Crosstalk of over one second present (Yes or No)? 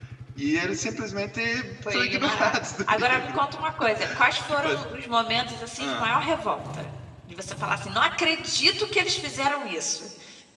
Yes